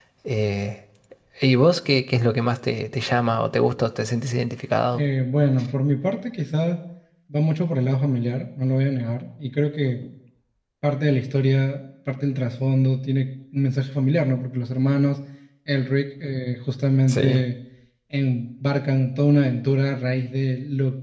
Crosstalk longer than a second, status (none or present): none